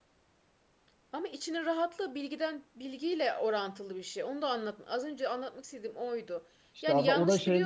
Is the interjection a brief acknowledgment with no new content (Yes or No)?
No